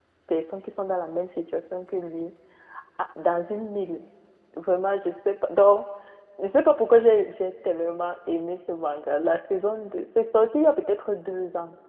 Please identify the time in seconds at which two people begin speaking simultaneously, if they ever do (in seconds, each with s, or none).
none